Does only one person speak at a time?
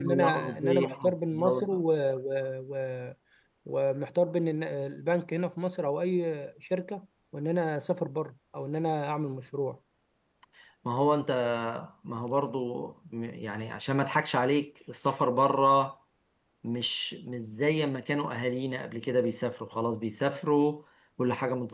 No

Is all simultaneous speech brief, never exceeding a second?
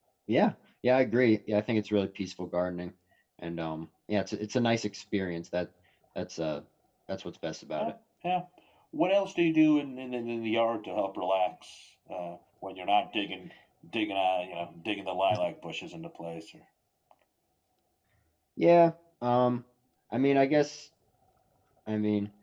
Yes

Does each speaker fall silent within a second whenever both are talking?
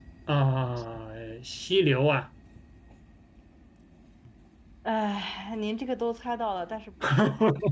Yes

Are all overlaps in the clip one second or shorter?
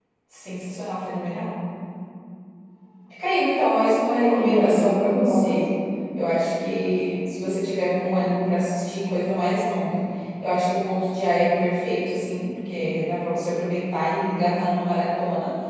No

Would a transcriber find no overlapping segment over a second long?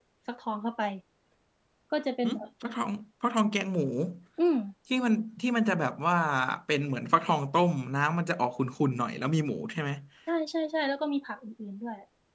Yes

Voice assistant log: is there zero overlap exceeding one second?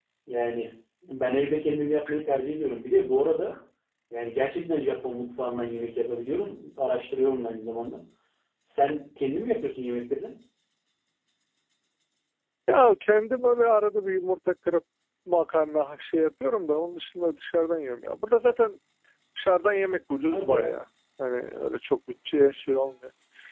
Yes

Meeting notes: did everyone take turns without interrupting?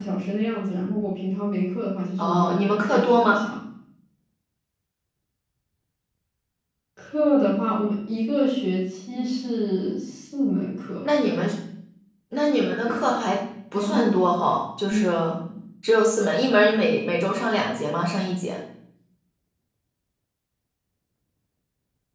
No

